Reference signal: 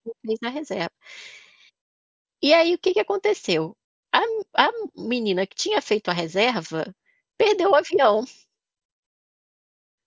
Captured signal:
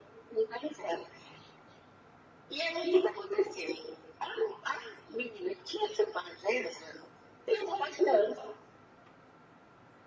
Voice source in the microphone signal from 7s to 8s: echo only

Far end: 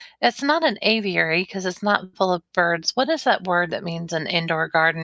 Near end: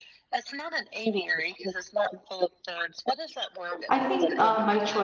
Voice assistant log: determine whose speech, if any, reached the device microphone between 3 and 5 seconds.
both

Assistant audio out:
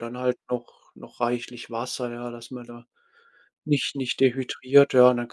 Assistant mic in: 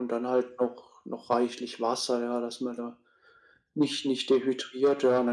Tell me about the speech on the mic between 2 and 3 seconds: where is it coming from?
echo only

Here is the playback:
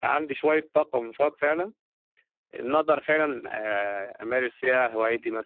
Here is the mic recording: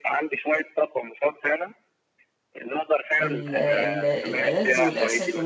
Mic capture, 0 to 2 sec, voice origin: echo only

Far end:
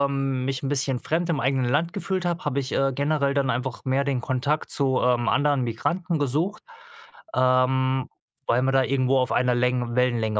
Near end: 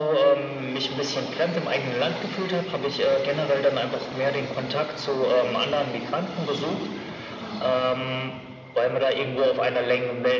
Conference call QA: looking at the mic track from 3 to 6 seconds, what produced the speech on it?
echo only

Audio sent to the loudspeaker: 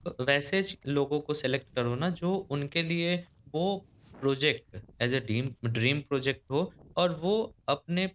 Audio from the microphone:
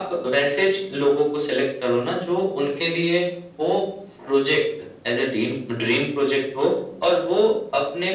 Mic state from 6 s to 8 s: echo only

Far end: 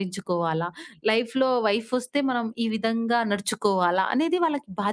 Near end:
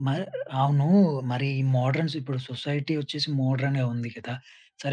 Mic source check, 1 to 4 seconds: user only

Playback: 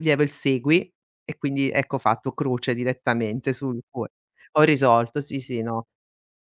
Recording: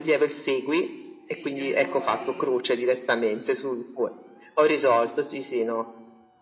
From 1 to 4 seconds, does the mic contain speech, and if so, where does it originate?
both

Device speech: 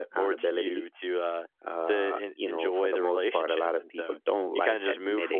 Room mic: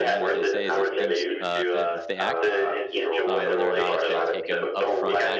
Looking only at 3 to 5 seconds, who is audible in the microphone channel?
both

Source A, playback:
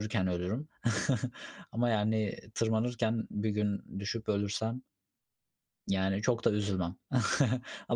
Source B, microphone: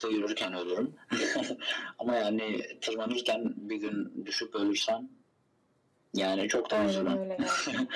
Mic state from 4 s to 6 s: echo only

